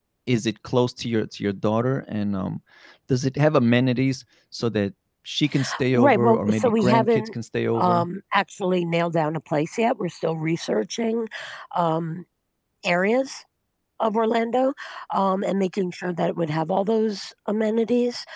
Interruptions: present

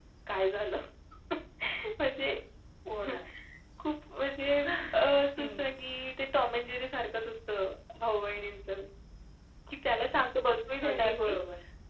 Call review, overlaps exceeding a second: none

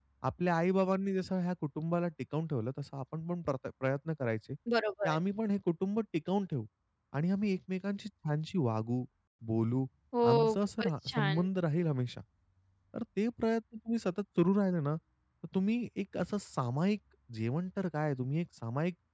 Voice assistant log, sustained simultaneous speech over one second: present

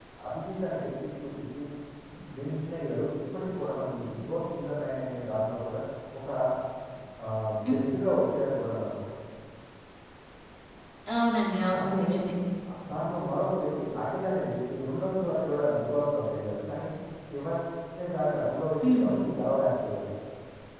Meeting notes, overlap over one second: none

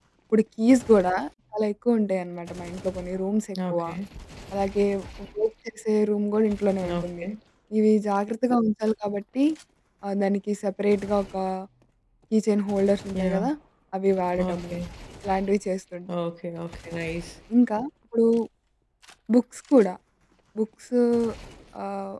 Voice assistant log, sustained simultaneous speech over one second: none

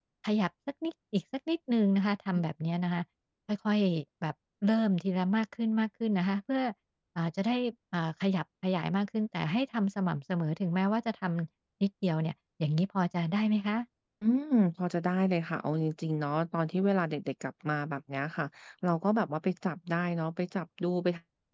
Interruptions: none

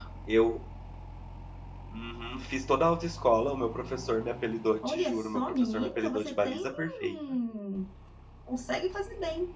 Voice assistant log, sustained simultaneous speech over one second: present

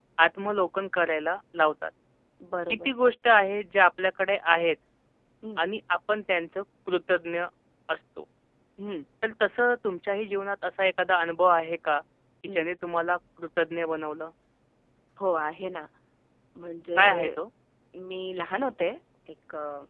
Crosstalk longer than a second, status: none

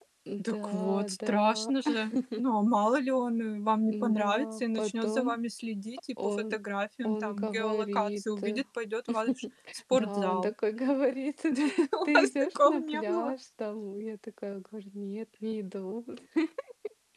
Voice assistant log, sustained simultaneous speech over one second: present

